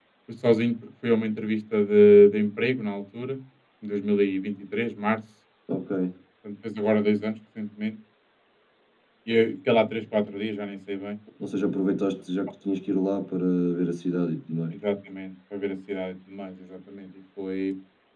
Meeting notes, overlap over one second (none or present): none